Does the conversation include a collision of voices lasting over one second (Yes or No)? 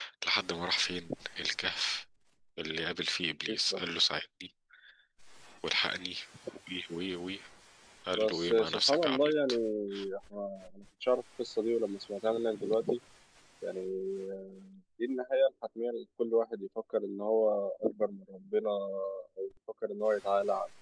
Yes